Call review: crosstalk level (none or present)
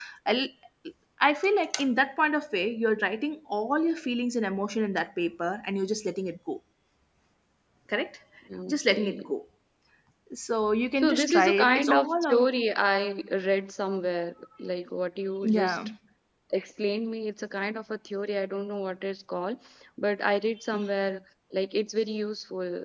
present